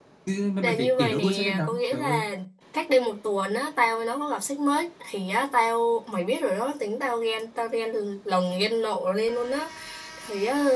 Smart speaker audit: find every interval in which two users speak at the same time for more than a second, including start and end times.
0.6-2.2

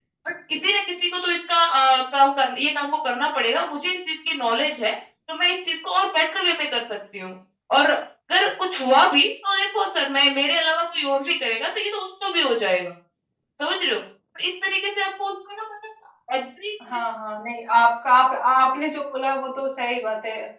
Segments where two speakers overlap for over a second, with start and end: none

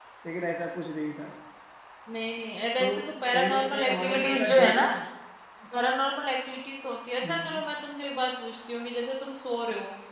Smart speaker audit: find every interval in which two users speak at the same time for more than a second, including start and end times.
3.3-4.8

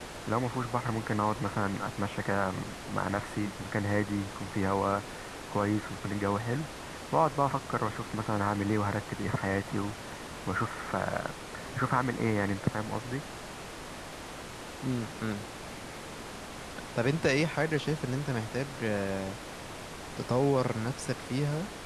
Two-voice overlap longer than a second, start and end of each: none

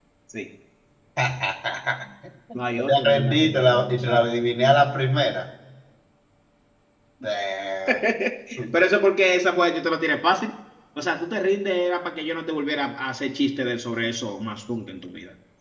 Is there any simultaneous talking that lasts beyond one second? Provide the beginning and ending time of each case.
2.5-4.3

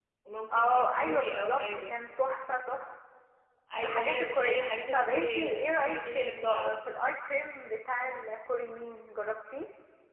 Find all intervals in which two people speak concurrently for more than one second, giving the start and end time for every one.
0.5-2.0, 3.8-6.8

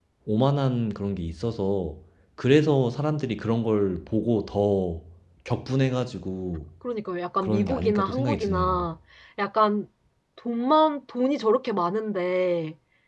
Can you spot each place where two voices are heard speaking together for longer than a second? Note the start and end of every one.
7.4-8.9

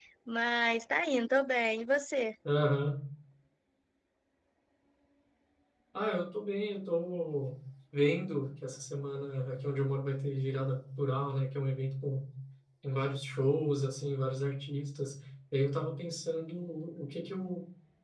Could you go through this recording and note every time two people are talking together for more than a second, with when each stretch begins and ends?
none

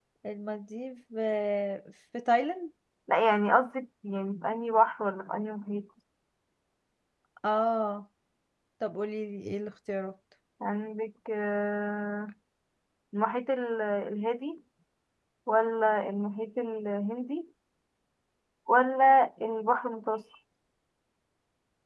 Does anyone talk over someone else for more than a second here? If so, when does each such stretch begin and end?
none

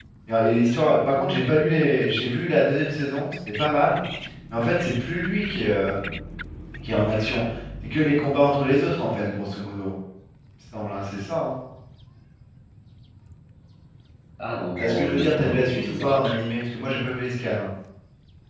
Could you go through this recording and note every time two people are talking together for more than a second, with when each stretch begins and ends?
14.8-16.2

